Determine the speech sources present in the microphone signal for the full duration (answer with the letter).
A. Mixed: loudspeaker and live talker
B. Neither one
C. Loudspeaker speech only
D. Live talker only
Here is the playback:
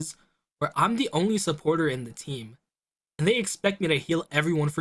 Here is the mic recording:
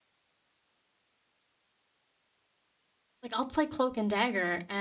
D